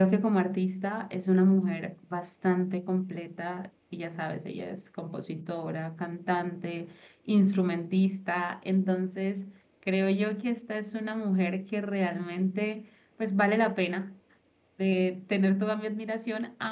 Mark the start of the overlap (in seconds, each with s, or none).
none